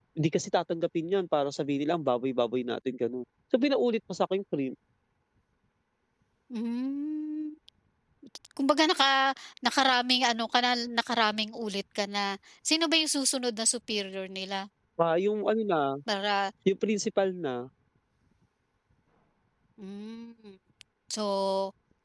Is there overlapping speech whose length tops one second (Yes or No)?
No